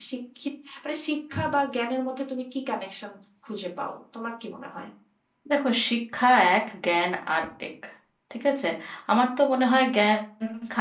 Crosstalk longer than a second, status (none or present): none